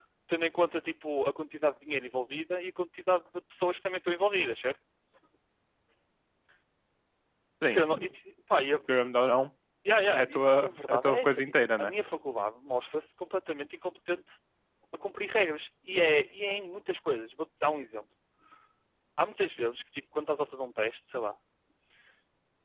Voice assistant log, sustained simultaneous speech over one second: present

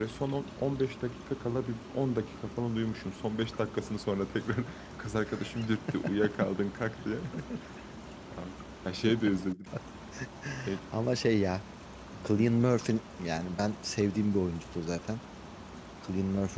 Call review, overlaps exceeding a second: none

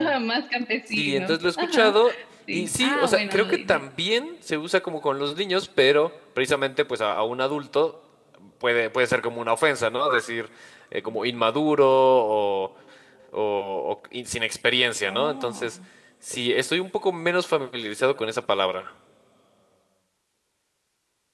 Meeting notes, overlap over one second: present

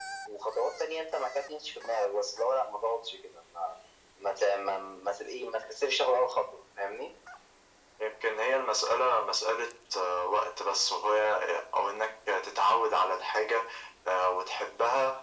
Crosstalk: none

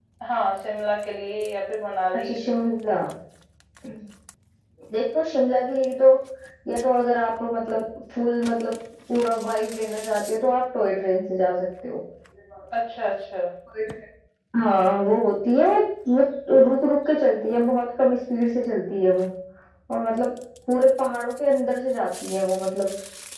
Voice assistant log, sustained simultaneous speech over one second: none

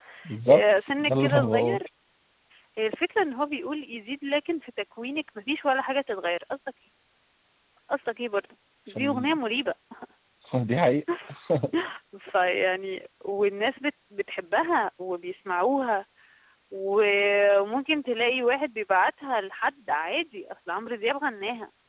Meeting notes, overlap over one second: present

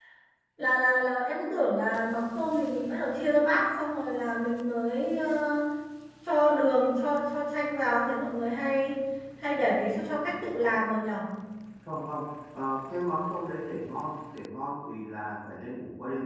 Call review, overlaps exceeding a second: none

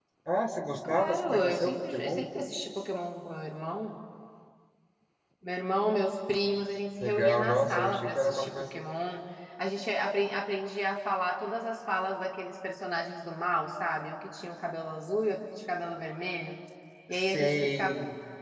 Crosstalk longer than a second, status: present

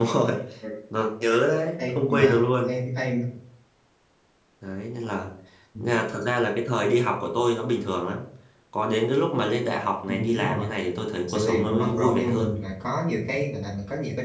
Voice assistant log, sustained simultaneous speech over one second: present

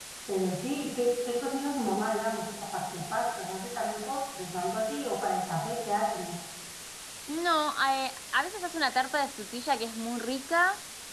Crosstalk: none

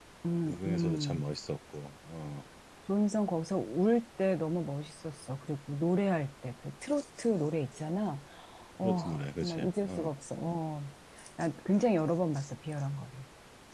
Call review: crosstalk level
present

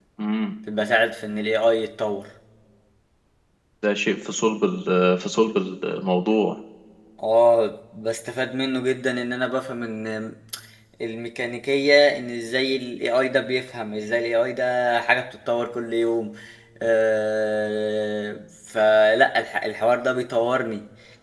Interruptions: none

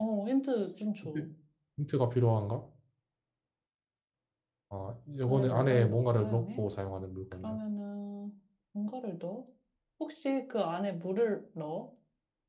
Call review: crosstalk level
present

